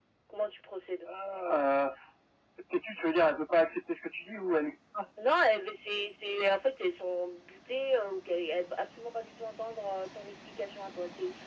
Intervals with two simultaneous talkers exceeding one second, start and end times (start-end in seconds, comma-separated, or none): none